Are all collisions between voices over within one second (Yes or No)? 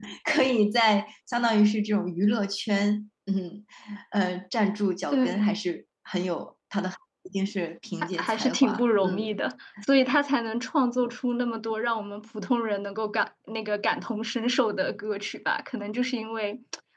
No